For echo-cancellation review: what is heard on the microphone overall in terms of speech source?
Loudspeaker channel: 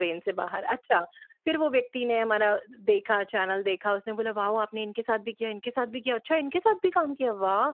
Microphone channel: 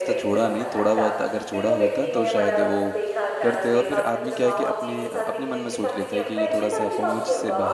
both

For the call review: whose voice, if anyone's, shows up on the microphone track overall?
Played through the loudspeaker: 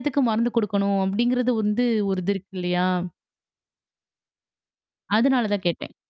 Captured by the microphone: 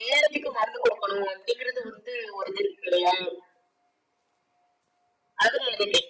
echo only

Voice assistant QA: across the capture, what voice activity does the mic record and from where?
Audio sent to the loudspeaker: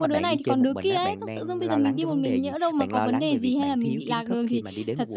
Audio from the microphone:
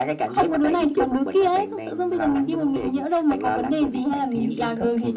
echo only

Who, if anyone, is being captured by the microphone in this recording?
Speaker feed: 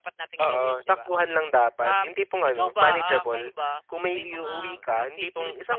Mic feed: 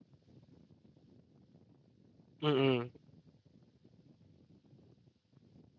user only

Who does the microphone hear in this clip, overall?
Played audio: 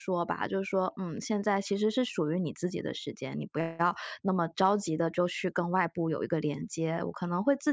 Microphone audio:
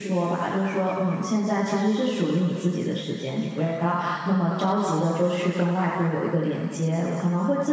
echo only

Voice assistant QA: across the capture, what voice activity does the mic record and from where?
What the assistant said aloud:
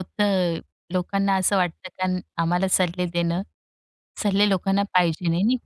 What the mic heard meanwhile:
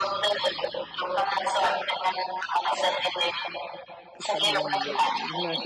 both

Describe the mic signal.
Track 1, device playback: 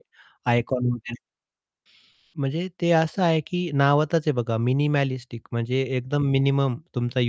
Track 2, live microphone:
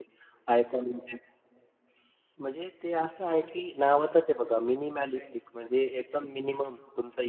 echo only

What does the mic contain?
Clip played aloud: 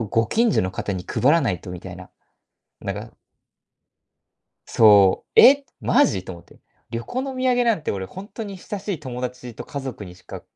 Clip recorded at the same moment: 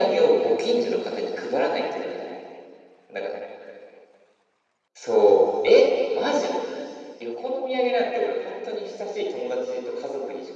echo only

